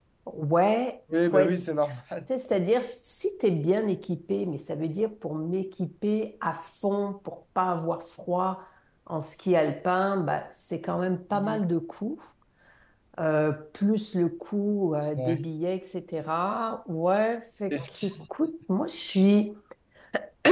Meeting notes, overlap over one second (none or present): none